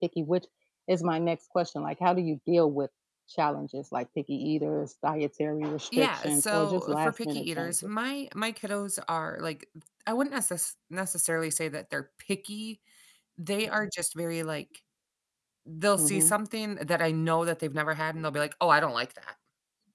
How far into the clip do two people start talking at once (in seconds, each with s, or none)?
6.0 s